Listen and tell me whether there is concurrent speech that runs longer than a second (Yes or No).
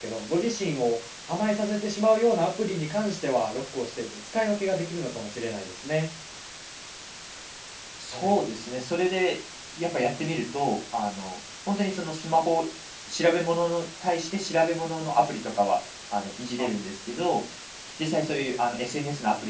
No